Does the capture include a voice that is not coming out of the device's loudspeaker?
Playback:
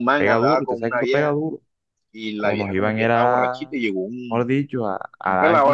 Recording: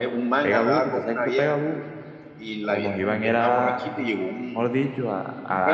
No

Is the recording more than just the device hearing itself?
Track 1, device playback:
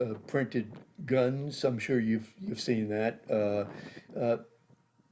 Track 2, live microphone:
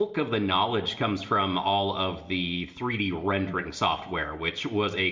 Yes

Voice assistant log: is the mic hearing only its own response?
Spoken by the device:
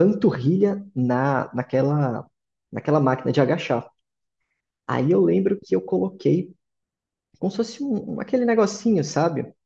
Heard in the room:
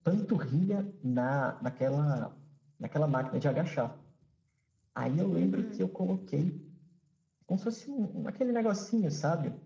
No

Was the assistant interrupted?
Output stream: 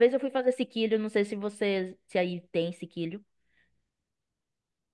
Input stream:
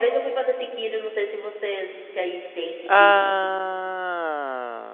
Yes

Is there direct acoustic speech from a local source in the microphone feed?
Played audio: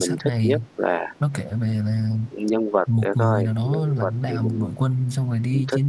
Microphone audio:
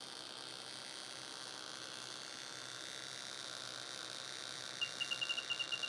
No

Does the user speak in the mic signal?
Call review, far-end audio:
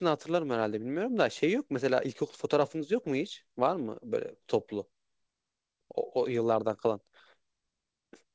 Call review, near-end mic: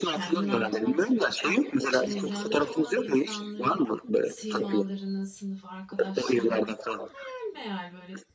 Yes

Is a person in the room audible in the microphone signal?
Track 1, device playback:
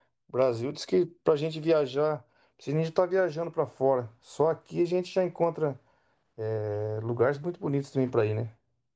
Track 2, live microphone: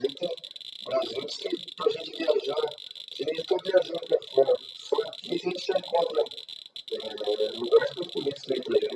No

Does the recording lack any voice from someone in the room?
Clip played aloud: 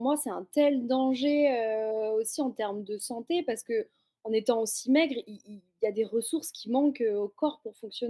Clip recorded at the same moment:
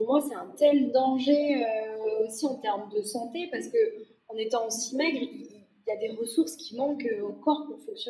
Yes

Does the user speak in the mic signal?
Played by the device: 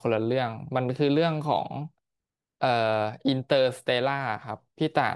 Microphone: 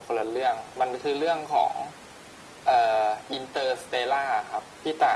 No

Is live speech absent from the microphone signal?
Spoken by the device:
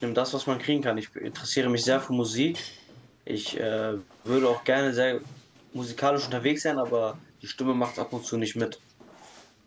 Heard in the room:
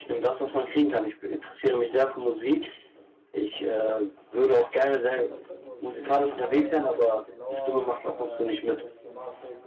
No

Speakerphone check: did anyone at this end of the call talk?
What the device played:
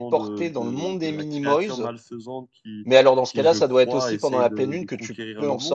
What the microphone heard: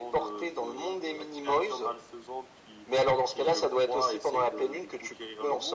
No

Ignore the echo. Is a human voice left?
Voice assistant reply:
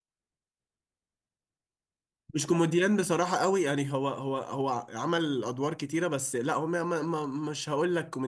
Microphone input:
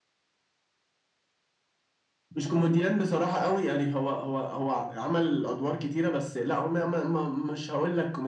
No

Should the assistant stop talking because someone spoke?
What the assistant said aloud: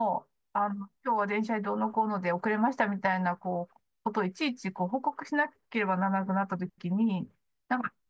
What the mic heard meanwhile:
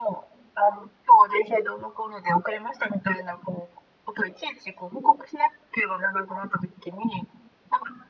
No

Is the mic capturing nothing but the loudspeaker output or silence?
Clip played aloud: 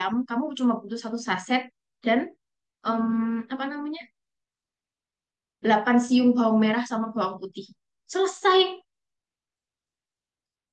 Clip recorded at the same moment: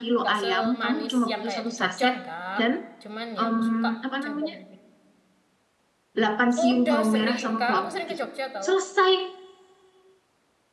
No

